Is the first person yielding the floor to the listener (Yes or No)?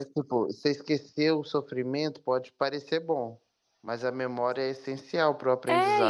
Yes